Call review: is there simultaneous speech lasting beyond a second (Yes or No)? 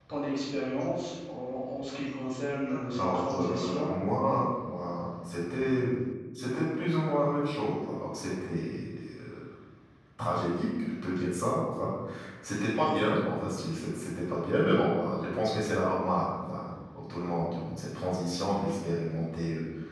Yes